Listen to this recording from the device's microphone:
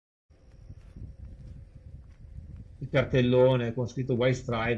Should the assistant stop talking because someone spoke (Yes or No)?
Yes